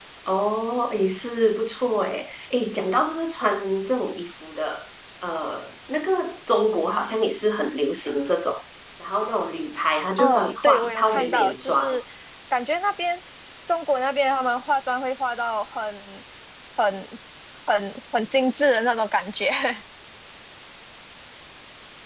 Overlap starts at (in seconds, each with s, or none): 10.2 s